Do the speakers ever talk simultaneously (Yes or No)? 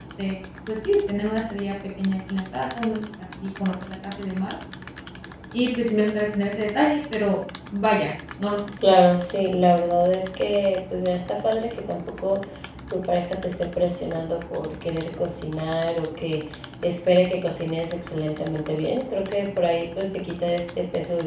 No